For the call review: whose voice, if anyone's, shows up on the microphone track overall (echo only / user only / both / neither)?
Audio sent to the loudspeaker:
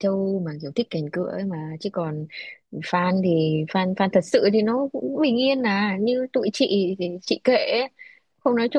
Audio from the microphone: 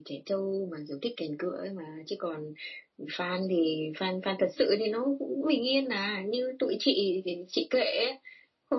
echo only